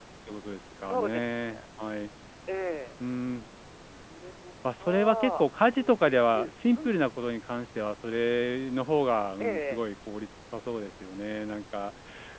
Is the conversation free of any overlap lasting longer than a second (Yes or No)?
No